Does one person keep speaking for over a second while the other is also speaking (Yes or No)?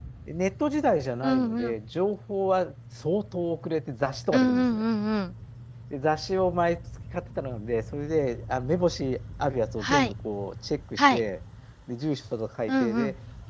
No